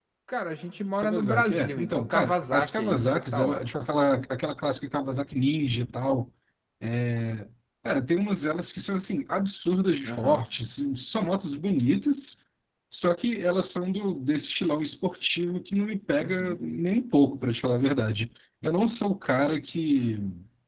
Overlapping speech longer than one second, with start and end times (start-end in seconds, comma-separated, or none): 1.0-3.6